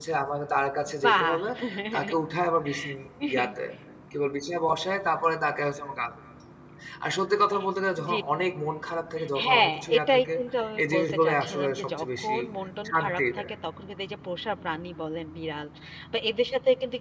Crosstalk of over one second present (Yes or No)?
Yes